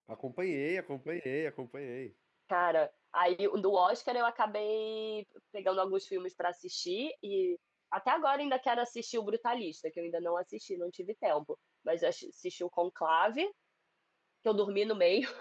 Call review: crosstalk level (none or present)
none